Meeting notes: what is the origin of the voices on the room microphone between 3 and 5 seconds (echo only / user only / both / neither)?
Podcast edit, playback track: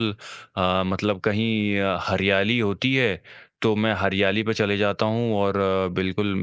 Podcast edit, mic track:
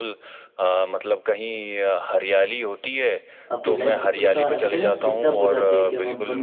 both